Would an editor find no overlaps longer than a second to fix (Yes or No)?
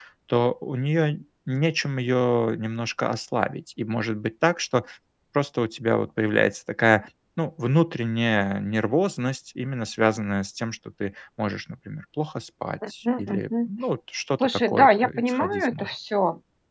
No